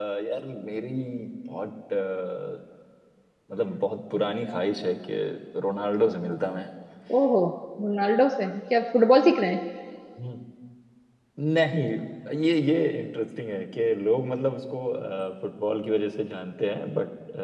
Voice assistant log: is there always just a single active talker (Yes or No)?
Yes